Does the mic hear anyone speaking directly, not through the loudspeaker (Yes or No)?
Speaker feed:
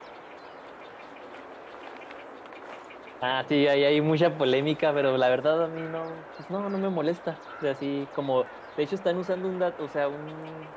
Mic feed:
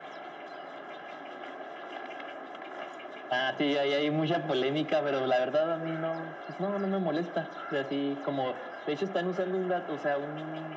No